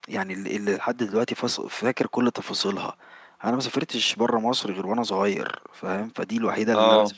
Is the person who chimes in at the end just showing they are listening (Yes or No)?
Yes